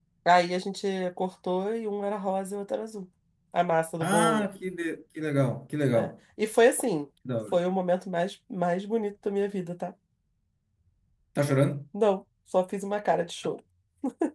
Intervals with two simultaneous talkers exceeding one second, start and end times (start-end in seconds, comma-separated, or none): none